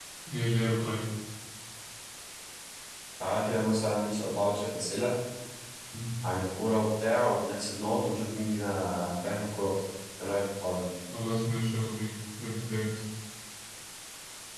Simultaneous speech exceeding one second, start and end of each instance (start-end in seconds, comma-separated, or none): none